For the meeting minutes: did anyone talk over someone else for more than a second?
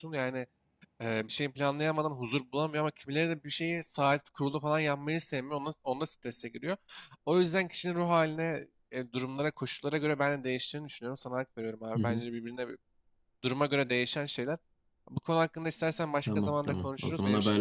Yes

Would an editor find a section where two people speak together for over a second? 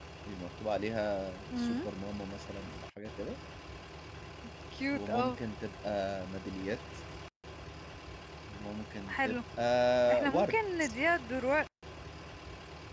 No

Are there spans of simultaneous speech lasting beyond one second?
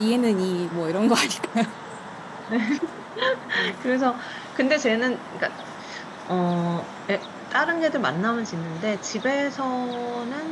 No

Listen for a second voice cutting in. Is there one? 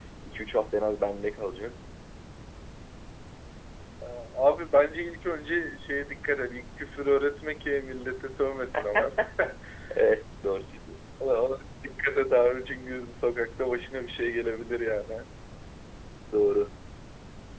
No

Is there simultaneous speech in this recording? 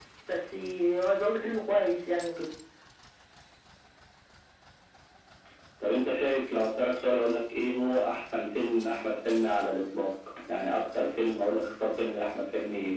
No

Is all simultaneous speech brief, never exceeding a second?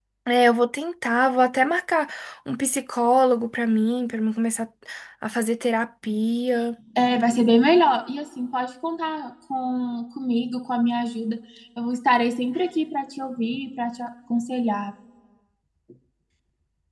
Yes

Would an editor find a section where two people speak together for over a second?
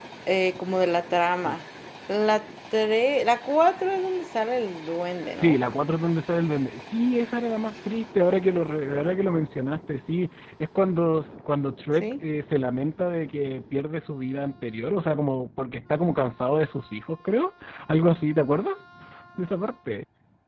No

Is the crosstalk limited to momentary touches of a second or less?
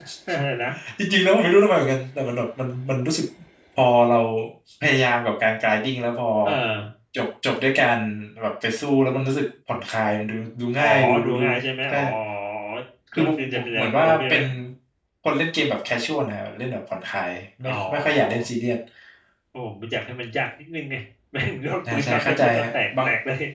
No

